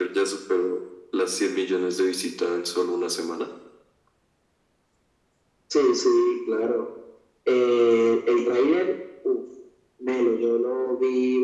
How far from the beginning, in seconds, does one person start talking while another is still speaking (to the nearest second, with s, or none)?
none